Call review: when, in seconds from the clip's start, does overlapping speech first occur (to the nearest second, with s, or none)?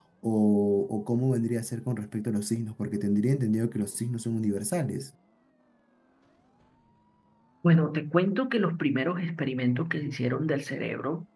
none